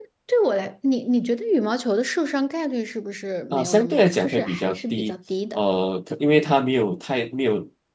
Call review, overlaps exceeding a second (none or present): present